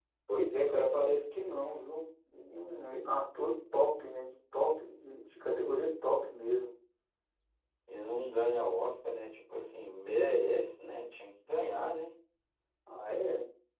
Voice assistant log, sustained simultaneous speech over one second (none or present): none